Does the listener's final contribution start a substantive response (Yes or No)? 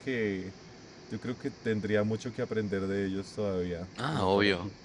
Yes